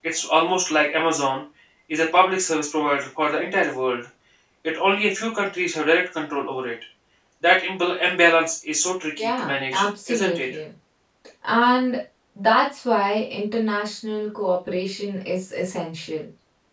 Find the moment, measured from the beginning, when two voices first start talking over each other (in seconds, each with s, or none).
9.2 s